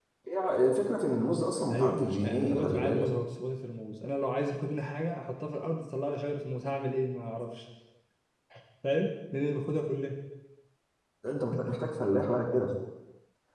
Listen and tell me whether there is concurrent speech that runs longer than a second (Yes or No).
Yes